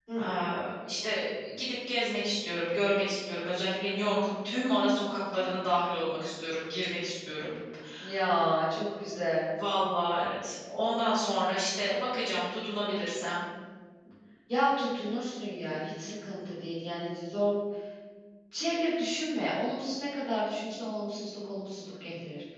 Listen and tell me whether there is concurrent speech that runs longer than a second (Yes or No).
No